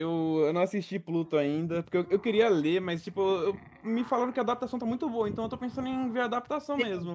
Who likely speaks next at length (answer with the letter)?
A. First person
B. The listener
B